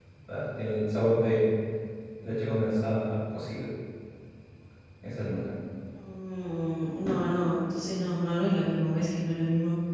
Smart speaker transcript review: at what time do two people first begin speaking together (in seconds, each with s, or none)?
none